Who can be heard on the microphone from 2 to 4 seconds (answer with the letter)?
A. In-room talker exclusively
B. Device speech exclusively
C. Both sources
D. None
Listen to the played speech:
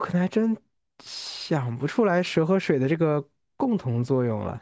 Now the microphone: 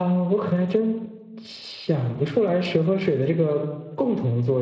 B